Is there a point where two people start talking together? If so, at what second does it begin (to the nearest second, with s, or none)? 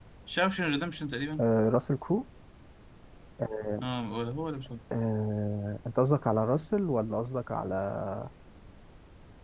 none